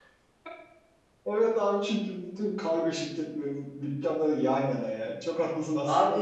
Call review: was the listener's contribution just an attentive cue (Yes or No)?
No